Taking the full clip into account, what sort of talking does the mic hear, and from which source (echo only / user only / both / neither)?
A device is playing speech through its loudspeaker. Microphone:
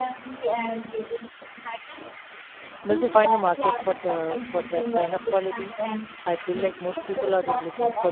both